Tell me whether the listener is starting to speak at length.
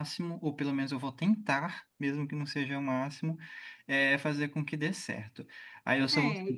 No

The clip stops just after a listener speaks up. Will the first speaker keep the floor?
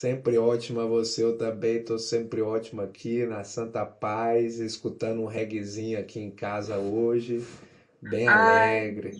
No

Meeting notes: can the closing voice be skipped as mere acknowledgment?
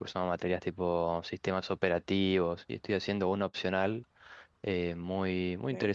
Yes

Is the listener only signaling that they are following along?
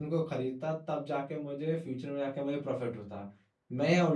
Yes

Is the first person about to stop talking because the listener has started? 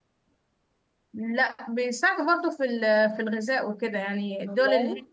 No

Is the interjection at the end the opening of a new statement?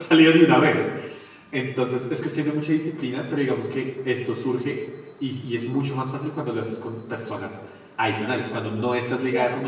No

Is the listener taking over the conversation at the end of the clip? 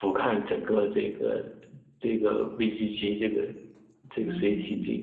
Yes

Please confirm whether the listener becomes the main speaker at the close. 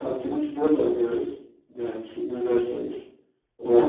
Yes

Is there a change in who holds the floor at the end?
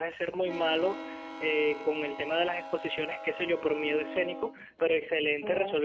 No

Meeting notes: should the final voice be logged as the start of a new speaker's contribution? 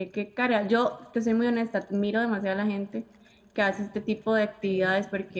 No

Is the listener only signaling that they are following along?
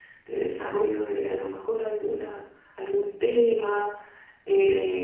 Yes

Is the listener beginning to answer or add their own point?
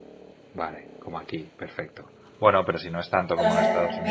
Yes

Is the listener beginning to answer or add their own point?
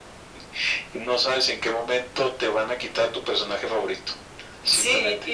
Yes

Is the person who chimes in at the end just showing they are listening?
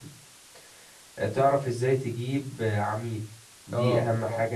Yes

